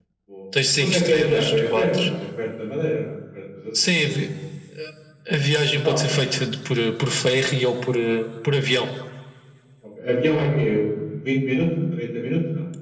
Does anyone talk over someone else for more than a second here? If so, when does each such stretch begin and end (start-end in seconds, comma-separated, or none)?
0.8-2.1